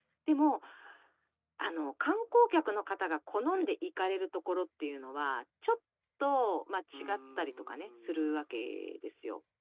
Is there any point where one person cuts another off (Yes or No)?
Yes